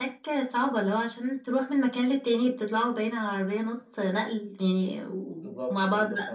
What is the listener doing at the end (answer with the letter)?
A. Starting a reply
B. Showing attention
A